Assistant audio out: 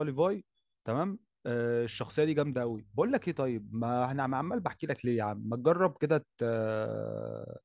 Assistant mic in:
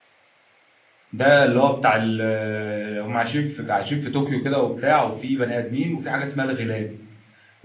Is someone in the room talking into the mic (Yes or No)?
Yes